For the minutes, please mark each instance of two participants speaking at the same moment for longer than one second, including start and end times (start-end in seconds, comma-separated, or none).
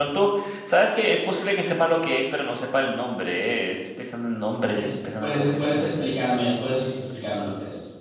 4.7-6.1